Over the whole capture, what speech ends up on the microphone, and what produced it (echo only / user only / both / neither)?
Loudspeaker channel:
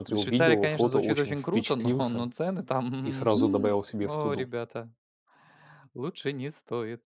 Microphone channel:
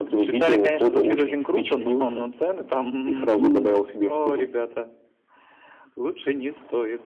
echo only